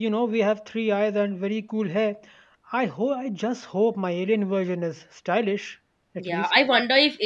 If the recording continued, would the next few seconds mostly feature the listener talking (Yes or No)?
Yes